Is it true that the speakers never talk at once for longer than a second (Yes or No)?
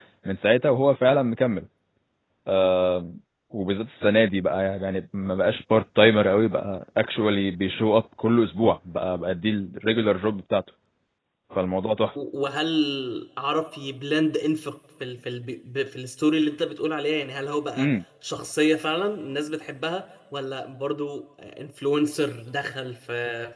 Yes